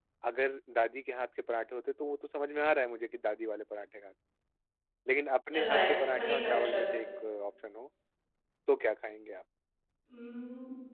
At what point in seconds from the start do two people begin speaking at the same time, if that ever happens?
5.6 s

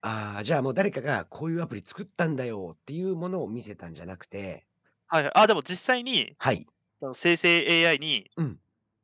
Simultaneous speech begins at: none

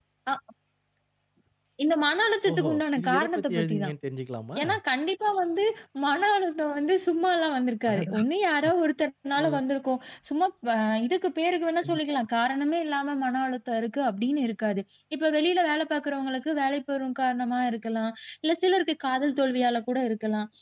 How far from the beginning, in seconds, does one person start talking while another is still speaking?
2.5 s

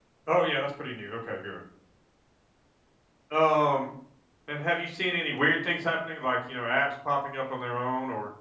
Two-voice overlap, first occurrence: none

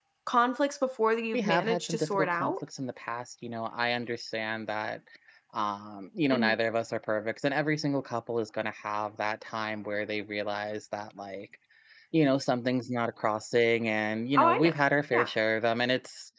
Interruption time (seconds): 1.3 s

